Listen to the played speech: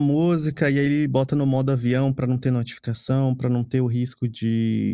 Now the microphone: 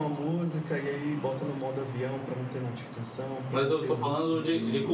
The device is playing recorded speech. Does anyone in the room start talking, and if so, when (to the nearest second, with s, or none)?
4 s